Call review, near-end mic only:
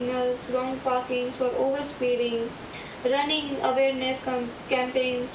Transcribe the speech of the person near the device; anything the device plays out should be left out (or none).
none